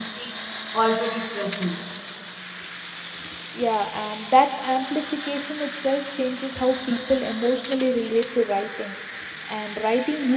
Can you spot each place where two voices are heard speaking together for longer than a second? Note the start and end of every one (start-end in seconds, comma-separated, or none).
none